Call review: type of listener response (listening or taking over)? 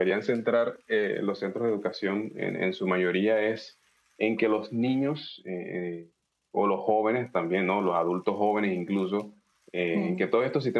listening